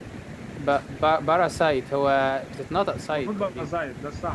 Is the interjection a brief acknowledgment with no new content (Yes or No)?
No